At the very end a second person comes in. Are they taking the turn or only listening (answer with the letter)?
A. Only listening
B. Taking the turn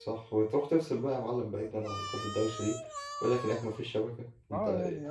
B